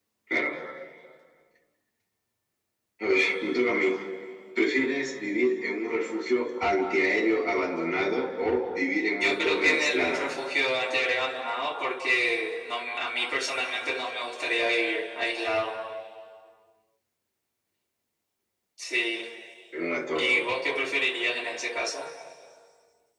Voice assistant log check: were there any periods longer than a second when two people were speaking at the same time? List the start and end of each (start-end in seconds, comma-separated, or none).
9.1-10.3